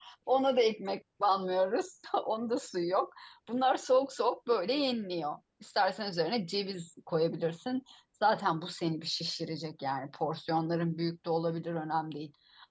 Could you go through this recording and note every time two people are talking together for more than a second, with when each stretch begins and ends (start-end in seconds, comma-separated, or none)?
none